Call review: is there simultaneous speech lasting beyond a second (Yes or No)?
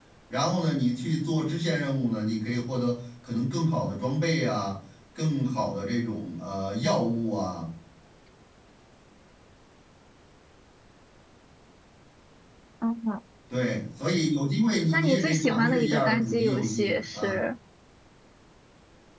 Yes